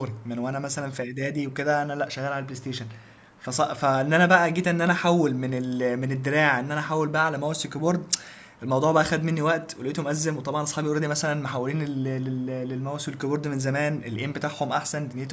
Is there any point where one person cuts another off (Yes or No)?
No